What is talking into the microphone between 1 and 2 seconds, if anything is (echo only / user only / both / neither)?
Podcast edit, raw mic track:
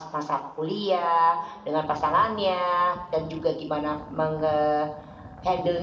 echo only